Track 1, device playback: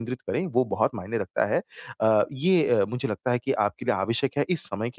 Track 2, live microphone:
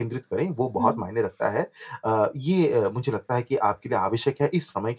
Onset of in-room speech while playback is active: 0.8 s

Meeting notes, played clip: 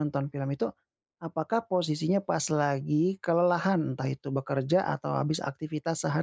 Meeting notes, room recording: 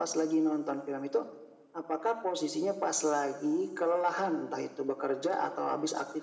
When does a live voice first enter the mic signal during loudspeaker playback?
none

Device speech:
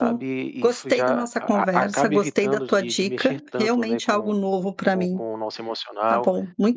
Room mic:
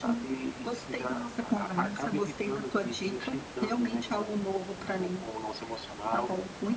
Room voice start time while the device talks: none

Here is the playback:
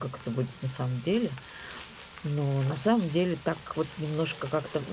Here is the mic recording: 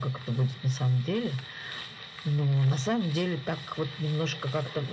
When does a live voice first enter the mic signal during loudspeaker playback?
none

